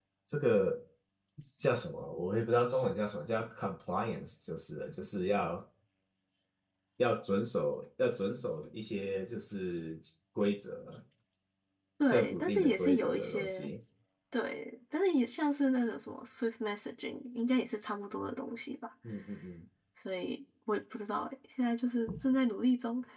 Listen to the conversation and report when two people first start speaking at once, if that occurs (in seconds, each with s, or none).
12.1 s